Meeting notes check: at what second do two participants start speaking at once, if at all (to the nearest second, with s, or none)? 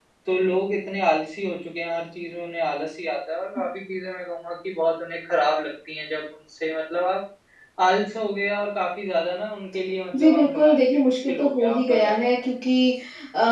10 s